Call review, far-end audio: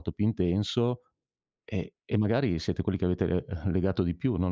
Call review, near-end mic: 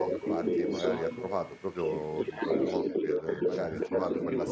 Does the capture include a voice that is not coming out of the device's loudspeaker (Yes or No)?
Yes